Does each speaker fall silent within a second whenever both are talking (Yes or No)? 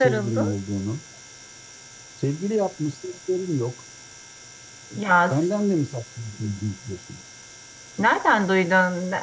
Yes